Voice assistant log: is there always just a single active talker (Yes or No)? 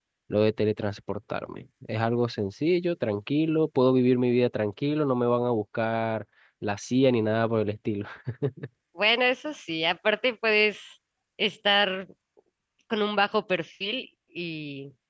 Yes